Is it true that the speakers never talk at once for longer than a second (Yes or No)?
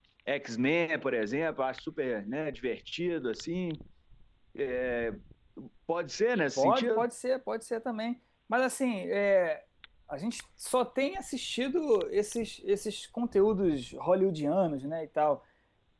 Yes